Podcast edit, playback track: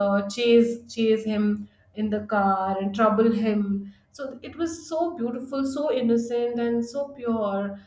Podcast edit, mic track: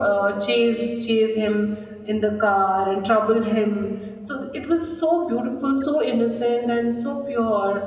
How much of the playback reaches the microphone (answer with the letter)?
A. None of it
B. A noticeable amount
B